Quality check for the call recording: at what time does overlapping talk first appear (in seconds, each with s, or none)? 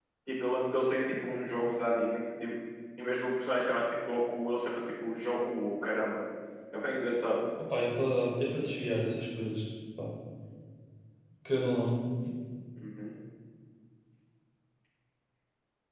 none